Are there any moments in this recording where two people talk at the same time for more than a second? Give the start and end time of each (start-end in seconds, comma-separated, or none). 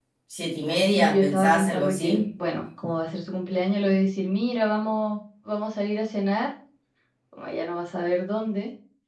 0.9-2.2